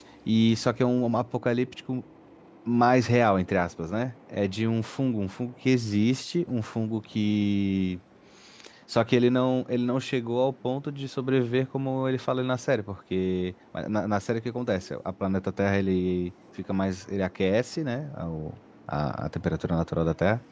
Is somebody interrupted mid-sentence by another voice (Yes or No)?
No